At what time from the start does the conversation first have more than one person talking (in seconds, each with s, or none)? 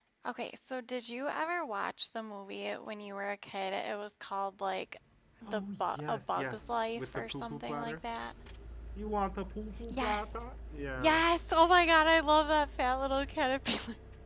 5.5 s